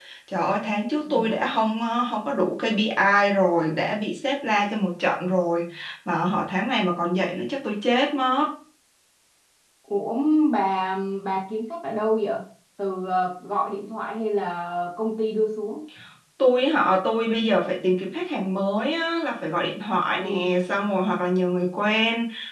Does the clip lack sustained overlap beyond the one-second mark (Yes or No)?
Yes